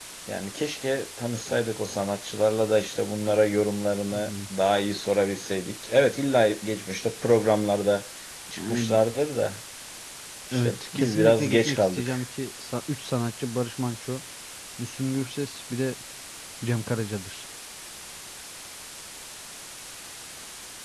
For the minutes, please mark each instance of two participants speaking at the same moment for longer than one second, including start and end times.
10.5-12.2

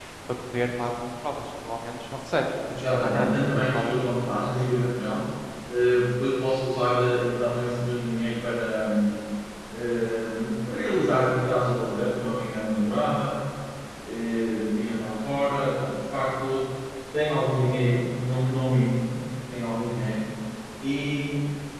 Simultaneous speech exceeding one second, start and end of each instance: 2.7-4.0

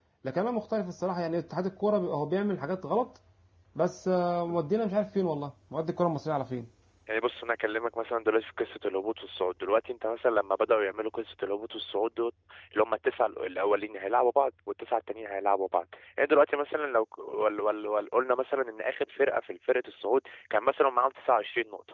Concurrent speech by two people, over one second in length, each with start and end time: none

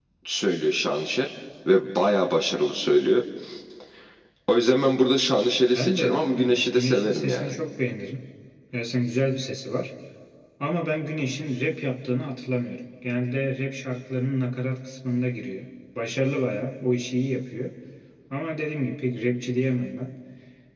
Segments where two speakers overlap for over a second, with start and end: 5.7-7.5

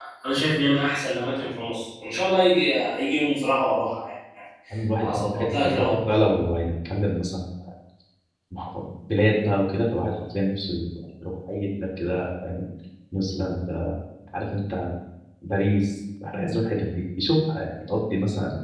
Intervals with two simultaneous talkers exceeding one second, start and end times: 5.0-6.2

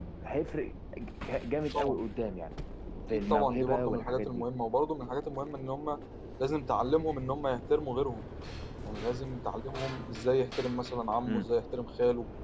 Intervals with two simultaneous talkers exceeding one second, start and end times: 3.1-4.4

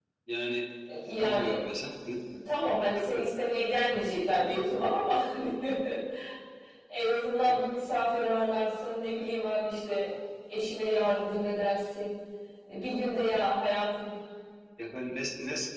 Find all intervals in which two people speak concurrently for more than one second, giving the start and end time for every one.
none

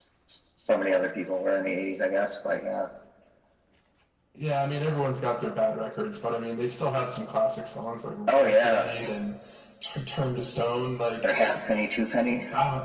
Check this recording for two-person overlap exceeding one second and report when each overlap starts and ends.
none

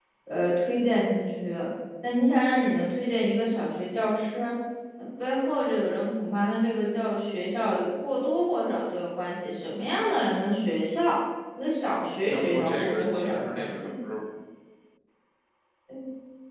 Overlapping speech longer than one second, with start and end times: 12.3-13.9

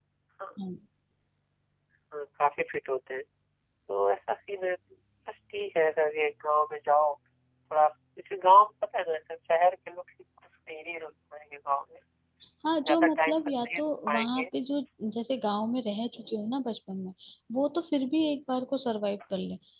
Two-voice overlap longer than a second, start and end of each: 12.8-14.5

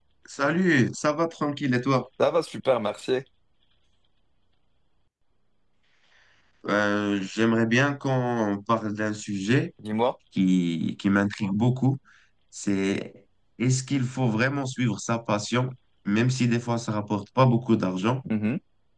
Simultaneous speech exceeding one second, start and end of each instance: none

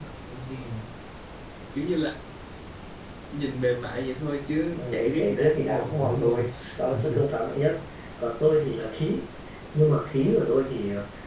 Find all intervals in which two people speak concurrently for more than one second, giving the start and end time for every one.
4.8-6.4

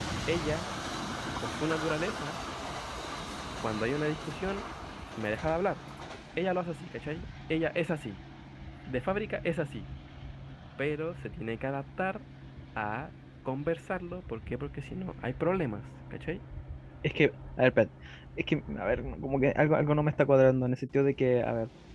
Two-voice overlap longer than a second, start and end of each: none

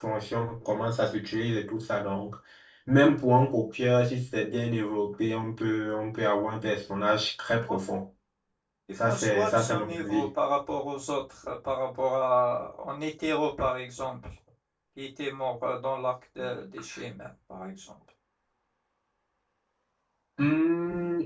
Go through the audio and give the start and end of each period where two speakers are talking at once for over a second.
9.1-10.3

